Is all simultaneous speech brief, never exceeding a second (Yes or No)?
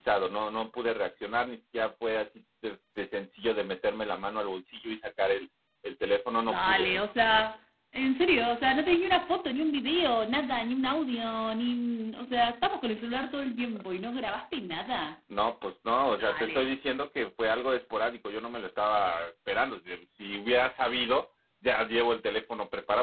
Yes